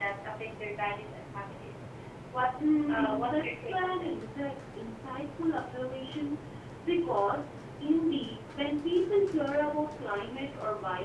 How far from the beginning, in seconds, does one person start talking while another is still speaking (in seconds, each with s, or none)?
2.6 s